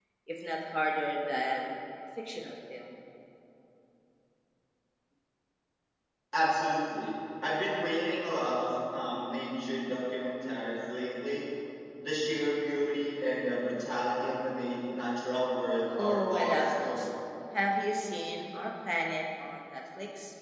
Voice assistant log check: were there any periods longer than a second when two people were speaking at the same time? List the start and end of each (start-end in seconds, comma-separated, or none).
15.9-17.1